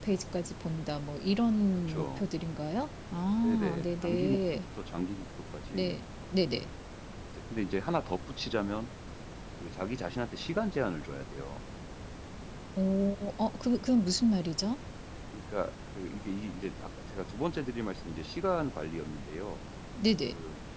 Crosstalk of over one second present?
Yes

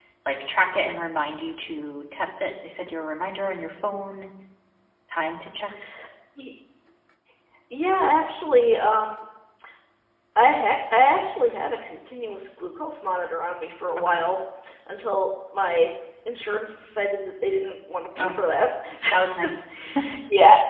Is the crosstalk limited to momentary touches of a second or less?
Yes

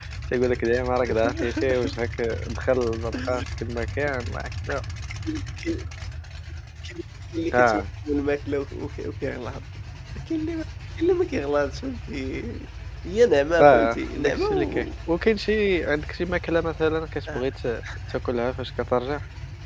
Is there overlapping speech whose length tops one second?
Yes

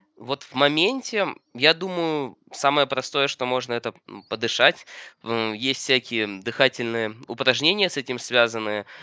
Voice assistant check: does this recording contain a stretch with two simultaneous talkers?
No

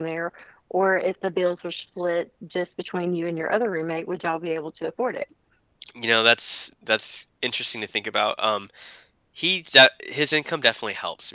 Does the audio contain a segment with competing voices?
No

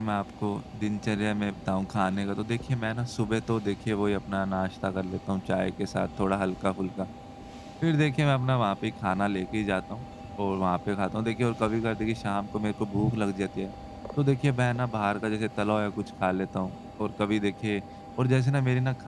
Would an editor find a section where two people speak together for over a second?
No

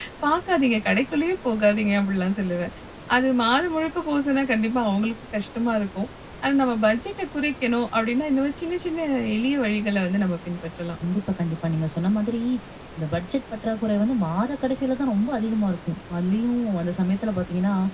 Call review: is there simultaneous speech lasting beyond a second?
No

